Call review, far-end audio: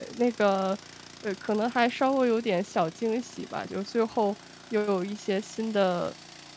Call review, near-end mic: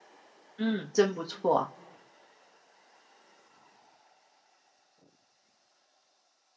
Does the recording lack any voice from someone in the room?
No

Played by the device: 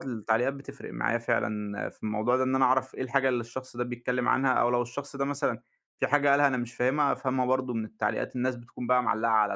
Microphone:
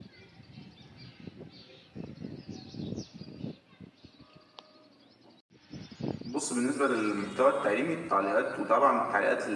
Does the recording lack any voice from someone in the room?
No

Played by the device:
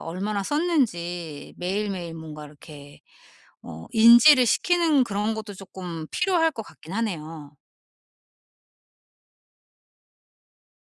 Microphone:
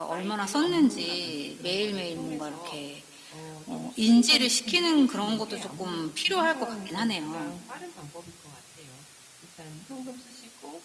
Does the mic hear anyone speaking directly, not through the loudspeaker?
Yes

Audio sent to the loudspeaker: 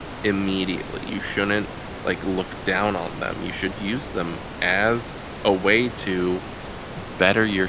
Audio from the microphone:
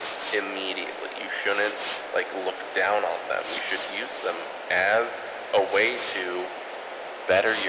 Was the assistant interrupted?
No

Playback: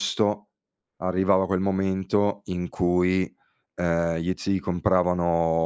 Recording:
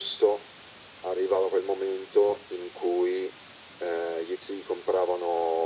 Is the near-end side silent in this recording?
Yes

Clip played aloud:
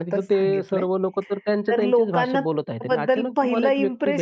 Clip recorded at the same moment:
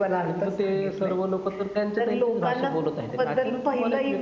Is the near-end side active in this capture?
No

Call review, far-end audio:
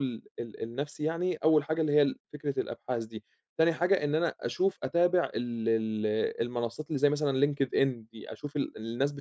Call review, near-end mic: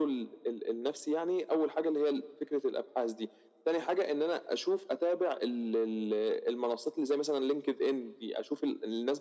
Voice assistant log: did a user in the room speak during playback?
No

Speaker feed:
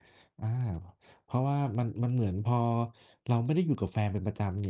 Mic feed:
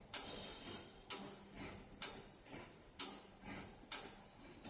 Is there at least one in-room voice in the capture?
No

